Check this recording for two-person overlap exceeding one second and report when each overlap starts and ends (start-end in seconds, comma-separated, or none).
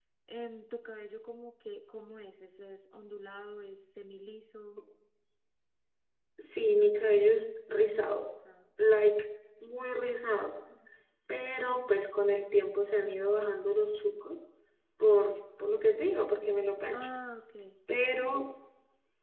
none